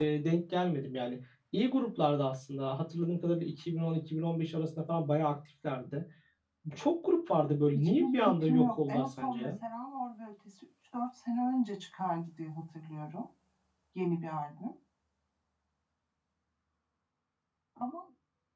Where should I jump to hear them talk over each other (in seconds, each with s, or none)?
7.7 s